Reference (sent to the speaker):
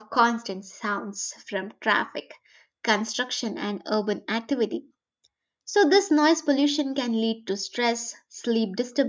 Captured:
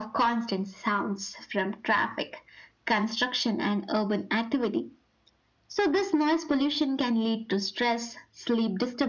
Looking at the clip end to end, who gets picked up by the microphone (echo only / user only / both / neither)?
echo only